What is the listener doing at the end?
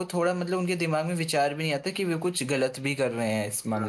taking over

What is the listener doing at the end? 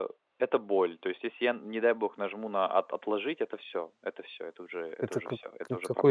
taking over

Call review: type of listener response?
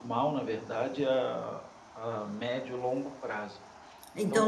taking over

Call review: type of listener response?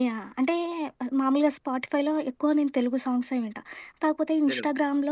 listening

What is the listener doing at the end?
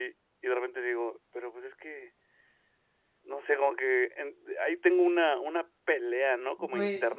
listening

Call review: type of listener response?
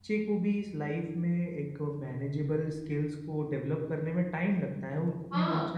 listening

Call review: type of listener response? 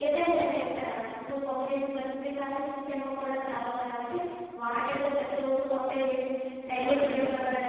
taking over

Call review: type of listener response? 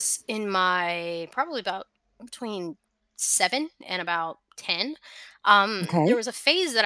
listening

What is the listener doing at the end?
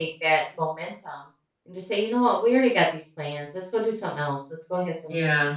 listening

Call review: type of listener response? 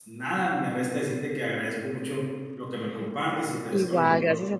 taking over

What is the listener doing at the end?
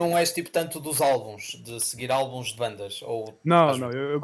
taking over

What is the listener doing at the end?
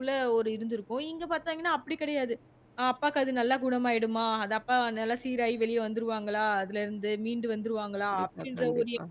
listening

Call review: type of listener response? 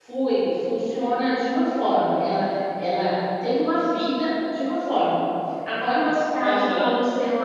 listening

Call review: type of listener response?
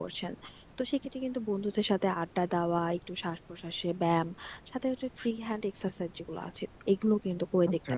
listening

